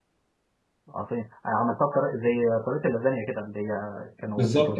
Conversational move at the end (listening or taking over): taking over